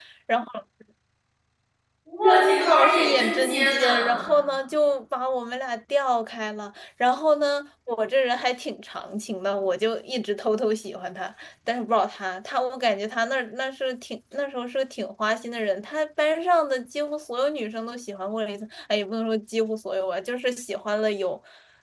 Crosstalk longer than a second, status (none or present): present